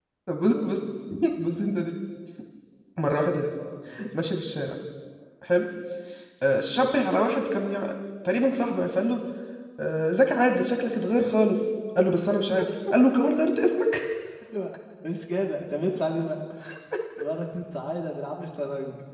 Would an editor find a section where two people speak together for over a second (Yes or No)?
No